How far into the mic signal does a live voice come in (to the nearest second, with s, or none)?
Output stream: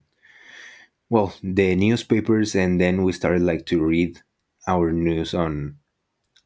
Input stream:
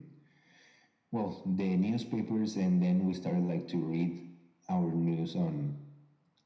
none